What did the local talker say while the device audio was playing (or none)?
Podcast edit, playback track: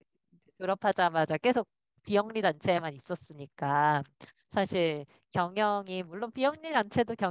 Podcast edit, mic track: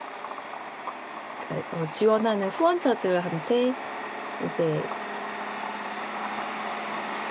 그러니까 어, 지원하는 후원자들한테 이제